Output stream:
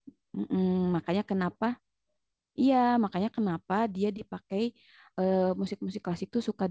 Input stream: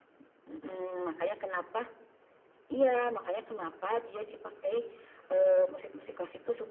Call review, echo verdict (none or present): present